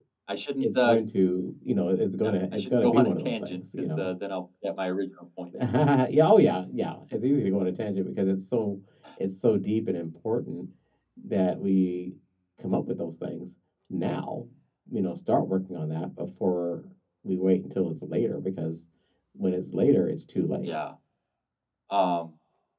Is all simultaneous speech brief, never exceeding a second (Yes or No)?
No